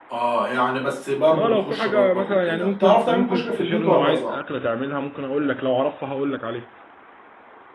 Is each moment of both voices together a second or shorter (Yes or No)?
No